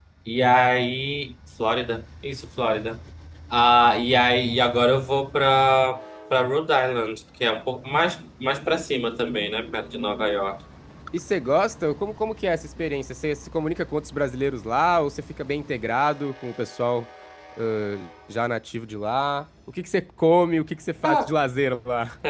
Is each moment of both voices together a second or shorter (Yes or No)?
Yes